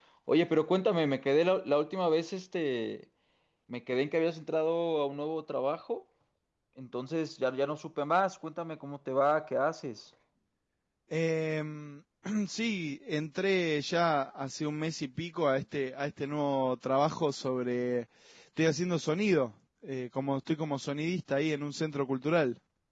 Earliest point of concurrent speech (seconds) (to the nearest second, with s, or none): none